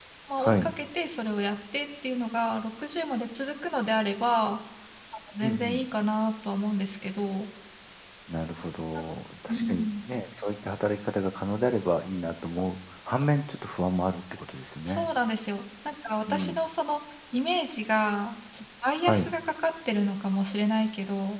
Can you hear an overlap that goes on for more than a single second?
No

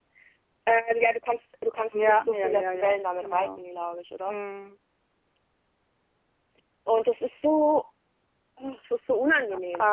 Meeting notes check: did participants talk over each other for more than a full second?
Yes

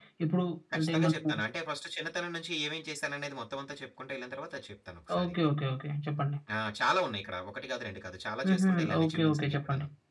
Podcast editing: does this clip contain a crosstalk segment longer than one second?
Yes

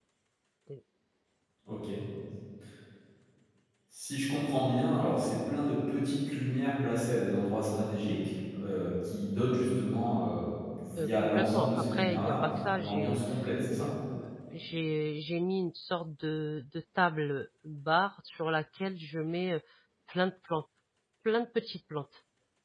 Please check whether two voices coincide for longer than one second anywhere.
Yes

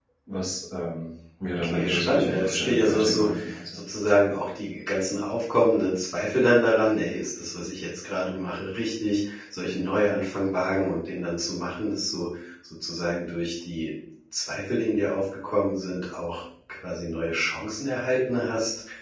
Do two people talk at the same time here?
Yes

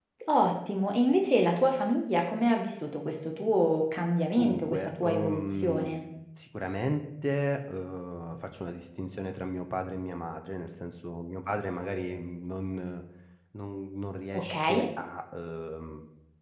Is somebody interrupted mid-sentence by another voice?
Yes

